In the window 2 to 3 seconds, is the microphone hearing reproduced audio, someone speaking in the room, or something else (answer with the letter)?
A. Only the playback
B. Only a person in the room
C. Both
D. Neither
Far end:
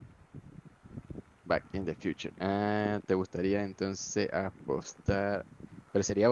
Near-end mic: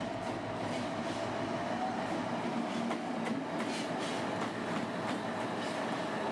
D